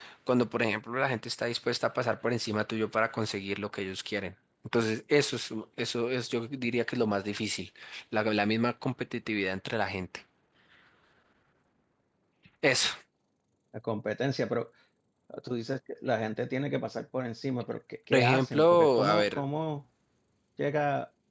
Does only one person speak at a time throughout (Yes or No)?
No